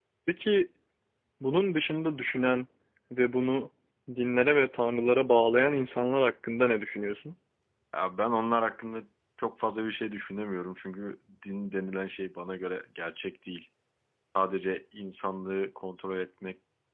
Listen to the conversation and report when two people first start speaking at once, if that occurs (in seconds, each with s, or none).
none